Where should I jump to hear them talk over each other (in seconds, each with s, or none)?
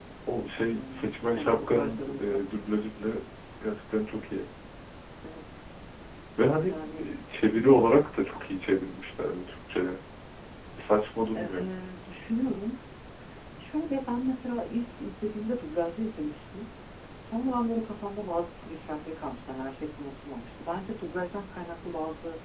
0.6 s